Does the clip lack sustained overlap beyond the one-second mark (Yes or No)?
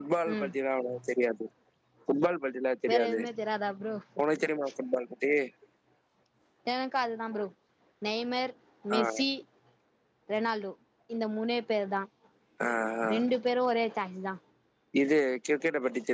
Yes